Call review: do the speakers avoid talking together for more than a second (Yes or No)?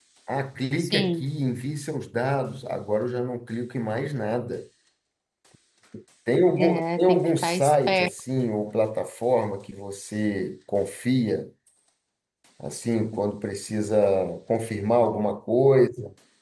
No